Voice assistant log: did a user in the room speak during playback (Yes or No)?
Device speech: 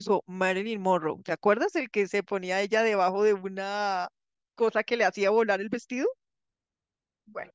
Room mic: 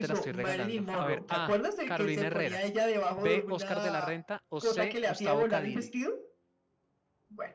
Yes